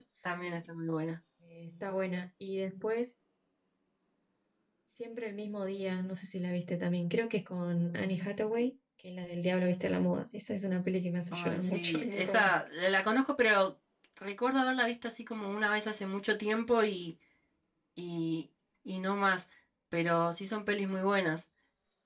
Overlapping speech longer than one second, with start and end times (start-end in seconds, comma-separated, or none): 11.3-12.6